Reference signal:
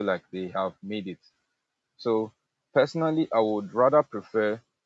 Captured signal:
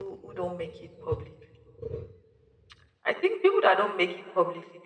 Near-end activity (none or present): present